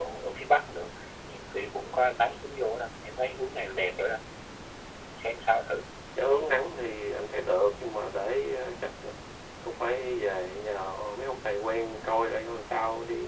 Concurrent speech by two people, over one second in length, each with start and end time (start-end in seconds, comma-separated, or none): none